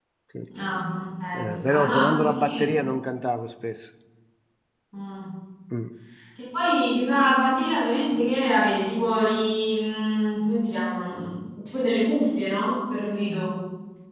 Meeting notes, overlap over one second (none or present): present